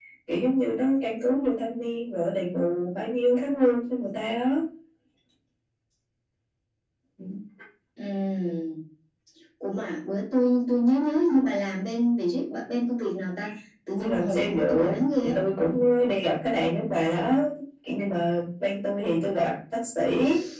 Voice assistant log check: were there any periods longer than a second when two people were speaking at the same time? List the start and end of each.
14.0-15.4

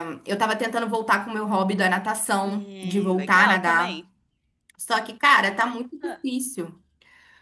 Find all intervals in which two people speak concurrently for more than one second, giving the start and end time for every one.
2.4-4.0

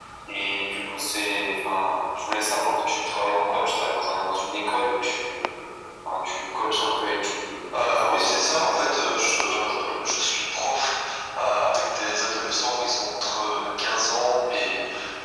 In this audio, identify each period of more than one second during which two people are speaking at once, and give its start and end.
7.8-9.7

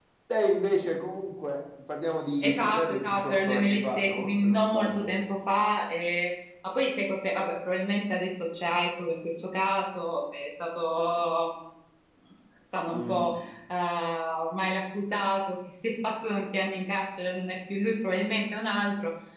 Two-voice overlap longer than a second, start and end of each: 2.4-5.1

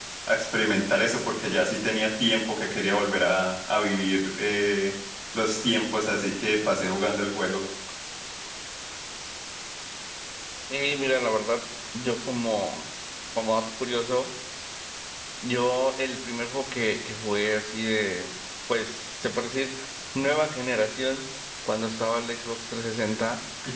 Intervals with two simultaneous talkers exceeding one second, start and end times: none

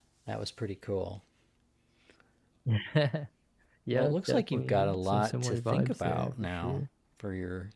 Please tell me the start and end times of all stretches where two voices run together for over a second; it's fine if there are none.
3.9-6.8

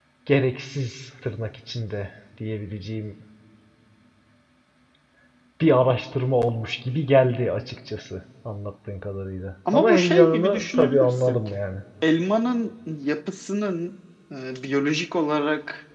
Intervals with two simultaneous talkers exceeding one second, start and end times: 9.7-11.4

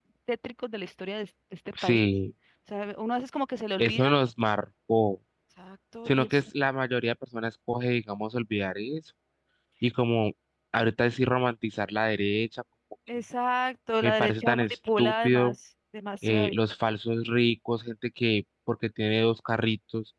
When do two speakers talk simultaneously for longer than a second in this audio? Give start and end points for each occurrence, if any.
14.0-15.6

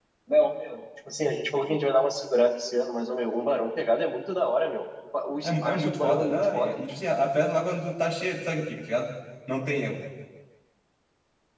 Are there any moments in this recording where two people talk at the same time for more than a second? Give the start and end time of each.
5.4-6.8

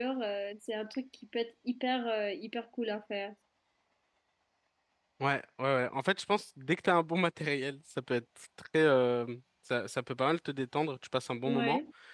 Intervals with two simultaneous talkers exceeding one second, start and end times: none

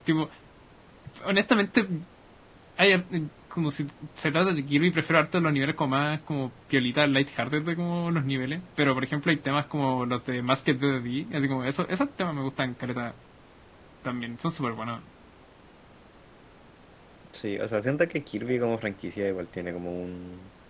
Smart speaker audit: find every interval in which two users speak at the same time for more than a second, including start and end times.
none

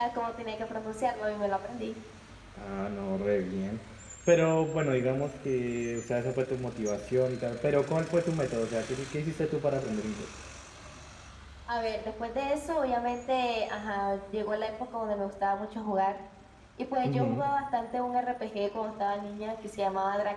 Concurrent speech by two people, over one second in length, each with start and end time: none

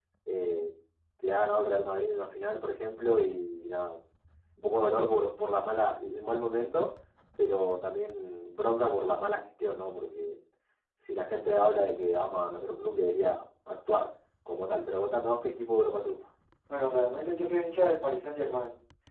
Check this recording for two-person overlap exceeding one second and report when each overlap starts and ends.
none

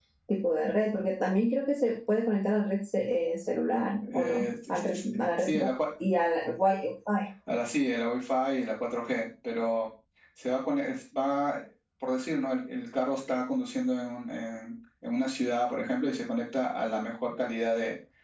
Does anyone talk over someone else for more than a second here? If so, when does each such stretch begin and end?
4.1-5.7

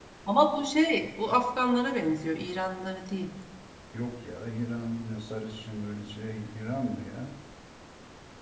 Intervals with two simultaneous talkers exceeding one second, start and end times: none

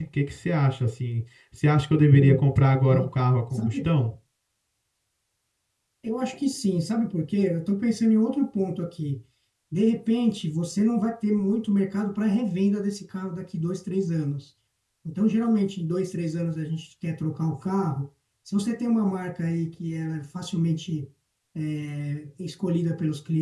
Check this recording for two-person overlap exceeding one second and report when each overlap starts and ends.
none

